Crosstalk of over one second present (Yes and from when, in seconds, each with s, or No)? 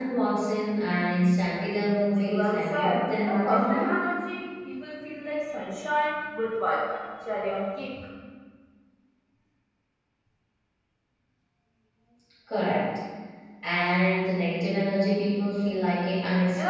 Yes, from 2.1 s